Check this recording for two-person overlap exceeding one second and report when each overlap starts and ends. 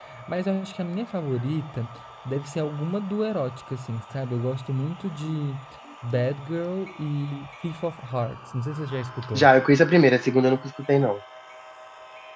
none

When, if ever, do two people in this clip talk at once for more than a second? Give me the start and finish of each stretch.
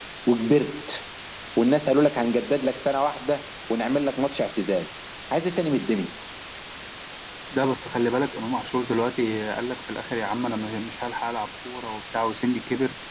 none

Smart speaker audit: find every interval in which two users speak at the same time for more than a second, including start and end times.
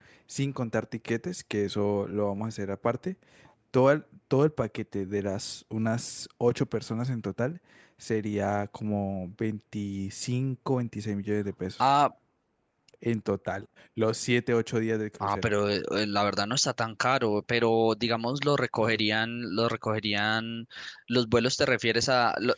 none

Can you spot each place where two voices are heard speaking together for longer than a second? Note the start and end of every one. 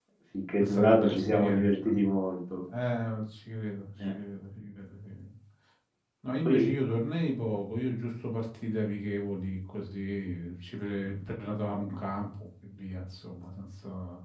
0.6-1.9

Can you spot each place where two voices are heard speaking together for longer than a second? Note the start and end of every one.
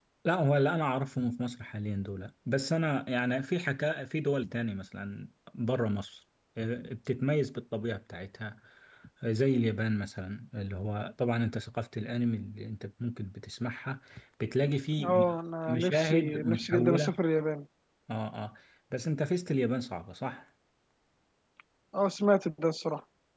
15.7-17.2

